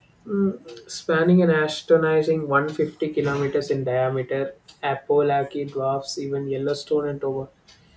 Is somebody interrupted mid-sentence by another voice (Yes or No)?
No